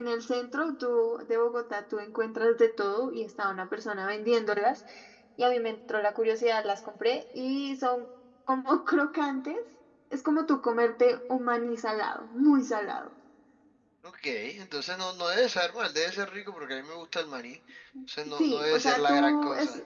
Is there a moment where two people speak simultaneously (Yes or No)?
Yes